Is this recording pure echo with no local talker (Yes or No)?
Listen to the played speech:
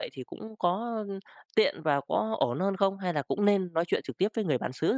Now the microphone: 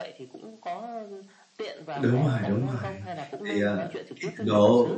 No